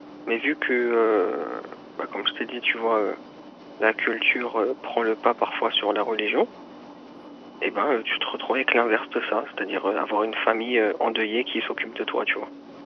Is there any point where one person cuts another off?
No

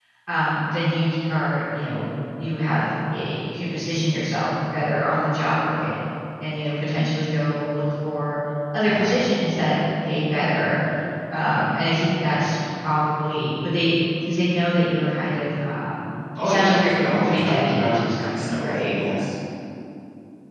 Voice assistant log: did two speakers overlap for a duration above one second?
Yes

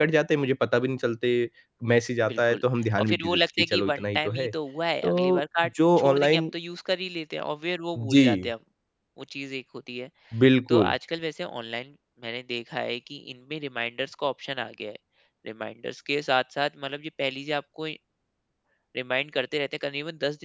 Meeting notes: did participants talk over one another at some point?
Yes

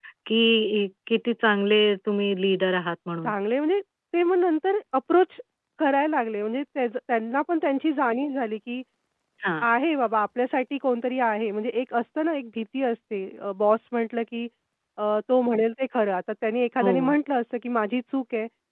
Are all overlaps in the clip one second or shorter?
Yes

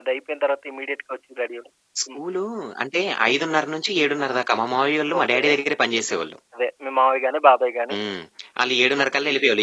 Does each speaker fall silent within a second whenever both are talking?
Yes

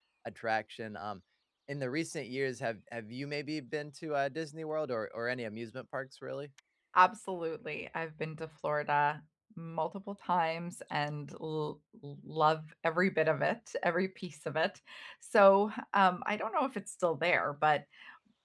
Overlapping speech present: No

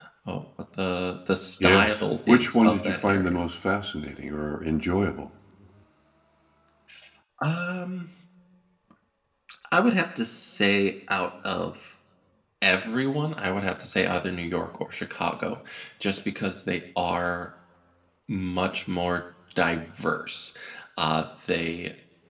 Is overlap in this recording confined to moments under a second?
No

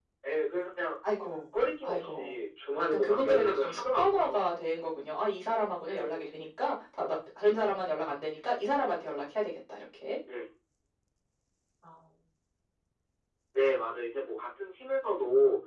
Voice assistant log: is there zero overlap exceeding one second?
No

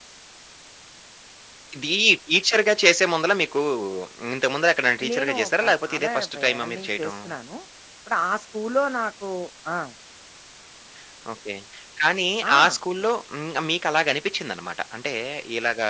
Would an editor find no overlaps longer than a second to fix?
No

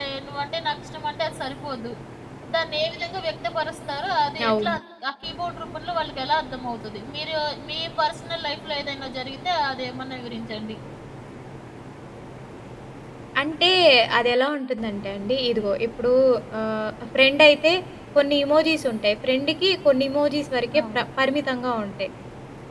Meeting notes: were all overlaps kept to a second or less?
Yes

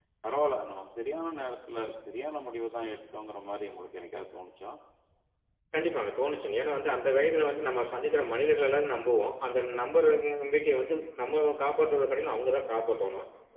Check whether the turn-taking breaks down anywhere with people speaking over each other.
No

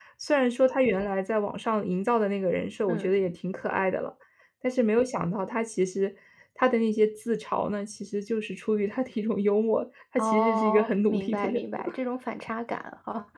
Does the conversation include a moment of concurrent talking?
Yes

